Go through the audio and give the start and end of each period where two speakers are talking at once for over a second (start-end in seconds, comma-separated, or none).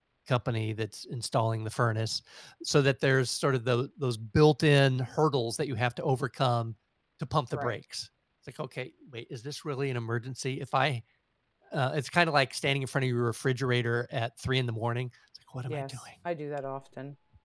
none